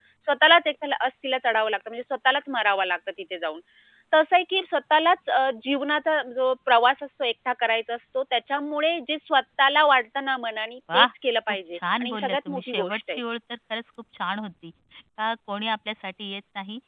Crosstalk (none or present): present